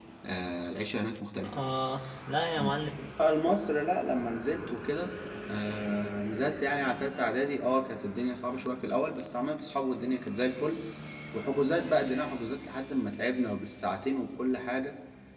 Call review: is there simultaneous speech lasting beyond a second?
No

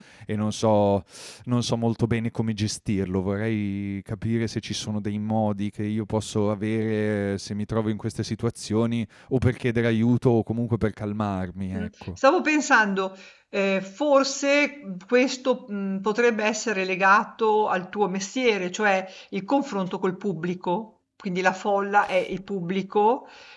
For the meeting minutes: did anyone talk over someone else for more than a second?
No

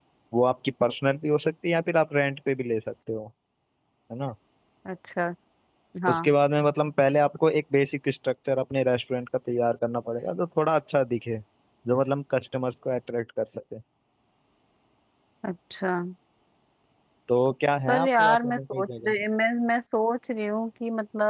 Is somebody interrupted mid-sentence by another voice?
Yes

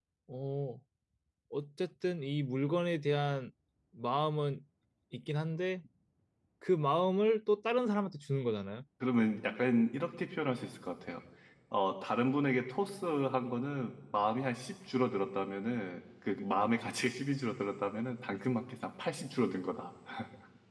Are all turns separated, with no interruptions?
Yes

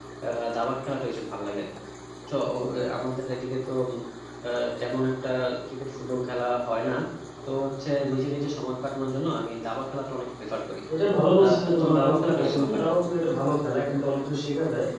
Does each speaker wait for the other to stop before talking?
No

